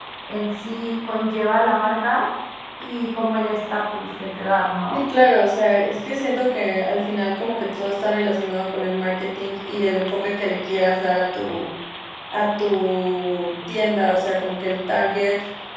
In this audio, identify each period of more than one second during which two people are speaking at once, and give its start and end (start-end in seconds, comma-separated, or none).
none